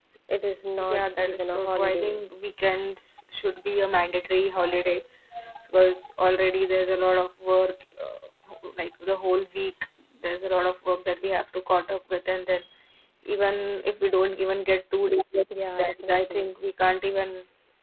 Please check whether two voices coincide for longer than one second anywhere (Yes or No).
Yes